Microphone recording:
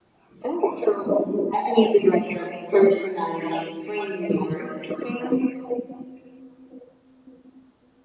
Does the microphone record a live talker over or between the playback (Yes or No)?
No